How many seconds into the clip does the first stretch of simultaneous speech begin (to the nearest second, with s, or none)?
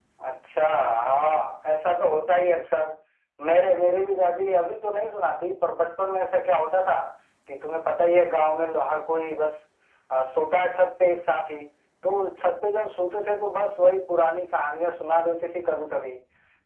none